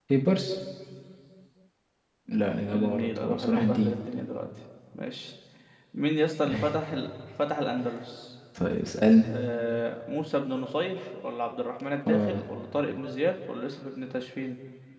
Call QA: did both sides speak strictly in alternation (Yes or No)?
No